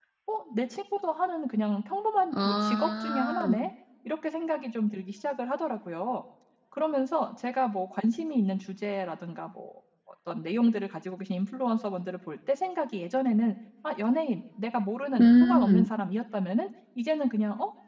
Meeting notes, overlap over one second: present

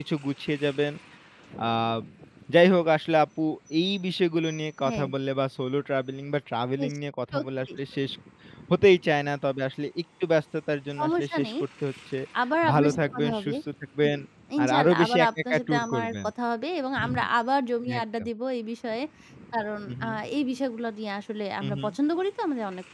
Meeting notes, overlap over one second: present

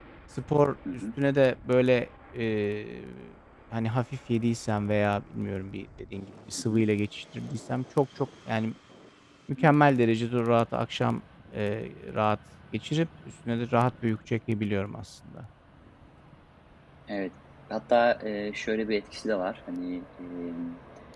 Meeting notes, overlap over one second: none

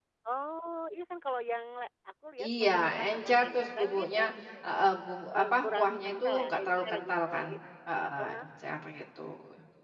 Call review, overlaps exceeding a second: present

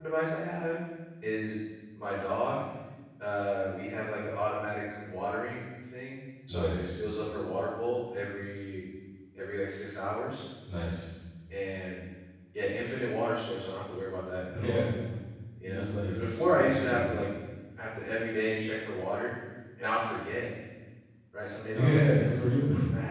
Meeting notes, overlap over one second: present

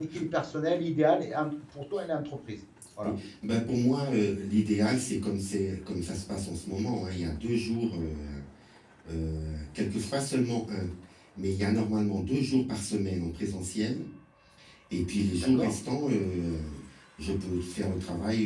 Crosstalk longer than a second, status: none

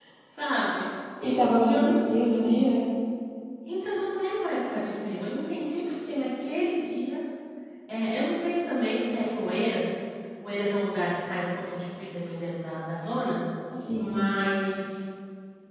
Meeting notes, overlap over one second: none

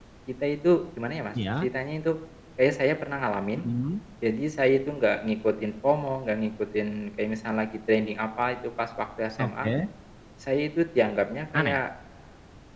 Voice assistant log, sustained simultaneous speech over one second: none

